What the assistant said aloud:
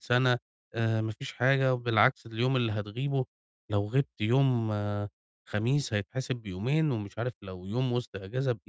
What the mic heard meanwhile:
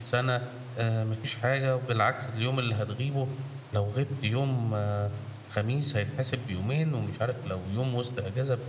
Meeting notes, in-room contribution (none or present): none